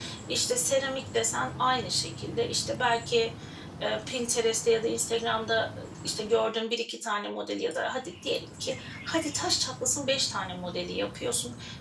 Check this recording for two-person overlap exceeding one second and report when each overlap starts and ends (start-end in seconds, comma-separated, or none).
none